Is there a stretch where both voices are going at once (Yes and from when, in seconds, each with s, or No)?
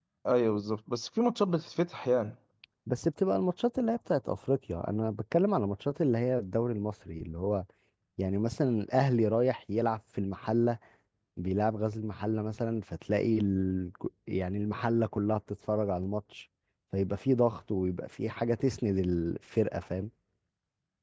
No